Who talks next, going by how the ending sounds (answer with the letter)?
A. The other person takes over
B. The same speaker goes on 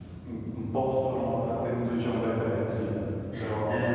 A